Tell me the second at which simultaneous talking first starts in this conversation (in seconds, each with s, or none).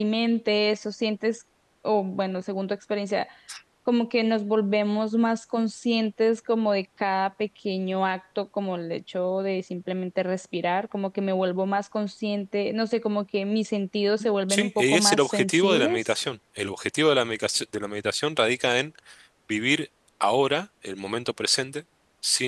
14.5 s